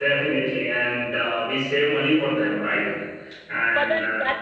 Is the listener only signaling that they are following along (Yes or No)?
No